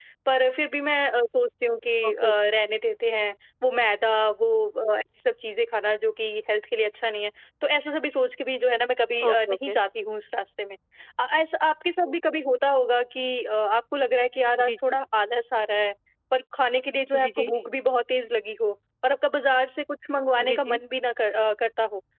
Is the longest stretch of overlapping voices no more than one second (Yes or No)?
Yes